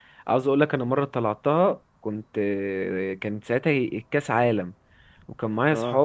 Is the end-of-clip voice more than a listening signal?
No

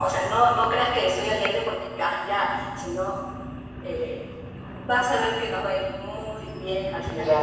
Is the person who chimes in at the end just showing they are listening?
No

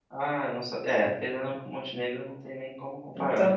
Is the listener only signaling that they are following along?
No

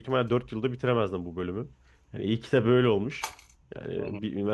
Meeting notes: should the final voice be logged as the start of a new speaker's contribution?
No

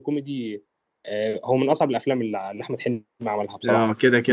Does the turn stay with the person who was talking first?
No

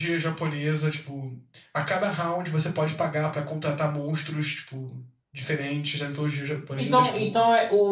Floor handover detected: Yes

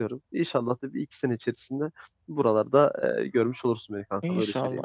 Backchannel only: No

